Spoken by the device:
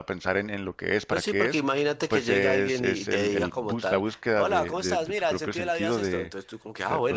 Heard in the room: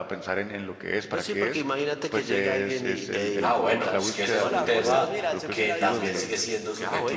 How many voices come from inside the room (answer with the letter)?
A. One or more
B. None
A